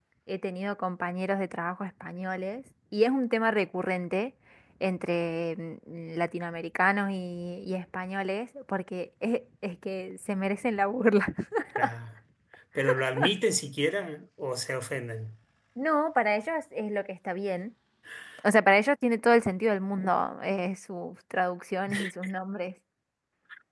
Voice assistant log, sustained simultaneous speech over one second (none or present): none